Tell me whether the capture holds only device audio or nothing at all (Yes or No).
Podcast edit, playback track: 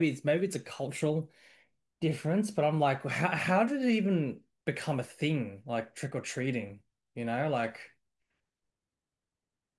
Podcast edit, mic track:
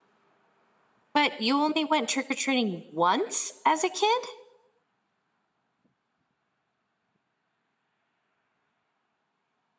No